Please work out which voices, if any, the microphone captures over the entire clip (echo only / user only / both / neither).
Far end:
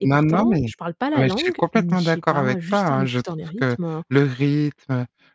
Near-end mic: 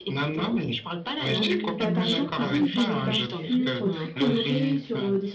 both